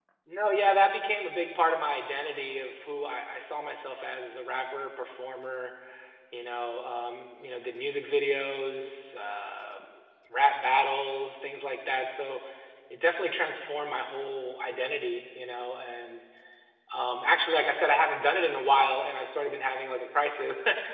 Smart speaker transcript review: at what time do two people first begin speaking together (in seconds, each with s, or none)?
none